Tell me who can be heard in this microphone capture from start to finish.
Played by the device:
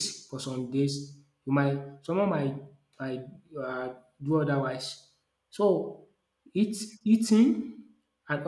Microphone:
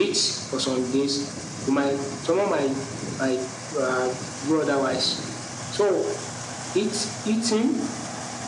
echo only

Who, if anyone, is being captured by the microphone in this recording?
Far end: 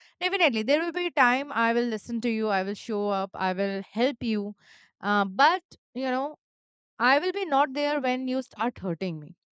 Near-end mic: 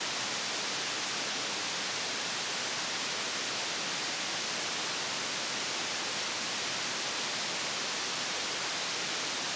neither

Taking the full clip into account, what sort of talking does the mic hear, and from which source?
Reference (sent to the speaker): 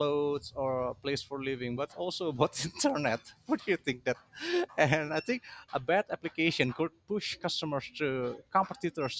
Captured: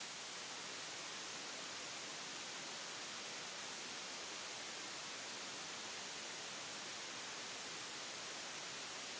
neither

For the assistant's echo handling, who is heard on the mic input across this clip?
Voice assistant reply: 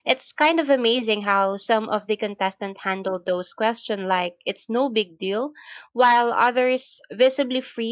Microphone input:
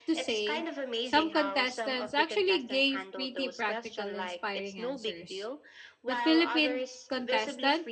both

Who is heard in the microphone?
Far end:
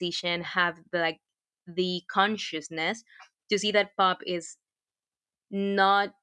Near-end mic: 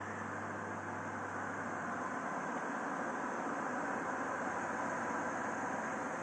neither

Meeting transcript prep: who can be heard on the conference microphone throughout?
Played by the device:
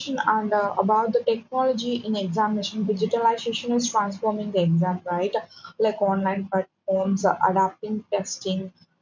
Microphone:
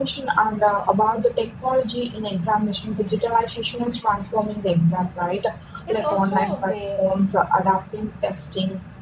both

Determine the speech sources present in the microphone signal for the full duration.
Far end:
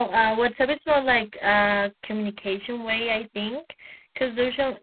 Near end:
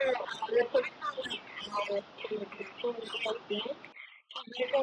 echo only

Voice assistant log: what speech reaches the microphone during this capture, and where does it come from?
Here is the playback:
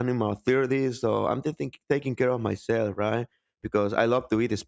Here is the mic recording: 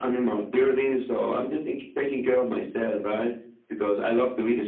echo only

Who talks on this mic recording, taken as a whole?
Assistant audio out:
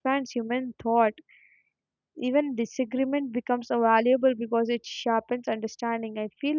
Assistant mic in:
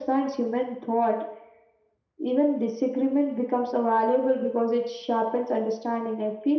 echo only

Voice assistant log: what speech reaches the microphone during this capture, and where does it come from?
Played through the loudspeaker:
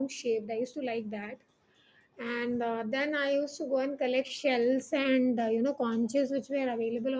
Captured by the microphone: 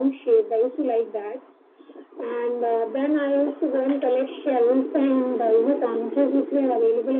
echo only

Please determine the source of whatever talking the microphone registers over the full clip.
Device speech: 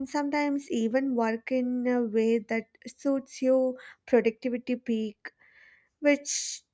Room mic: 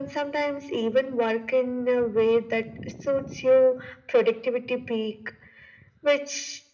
echo only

